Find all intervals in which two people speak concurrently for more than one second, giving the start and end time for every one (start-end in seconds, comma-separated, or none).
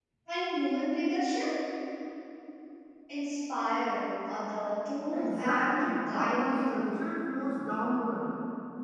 5.1-6.9